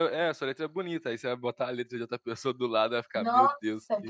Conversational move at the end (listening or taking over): taking over